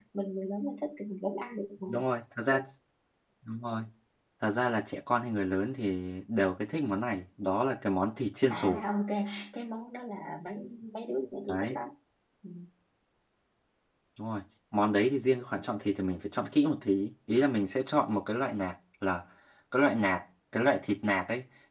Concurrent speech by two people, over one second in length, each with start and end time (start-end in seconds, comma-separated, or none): none